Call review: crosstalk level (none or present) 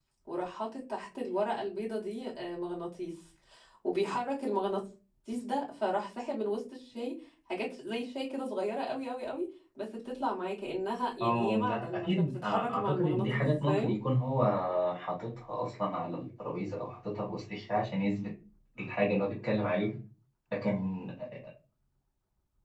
present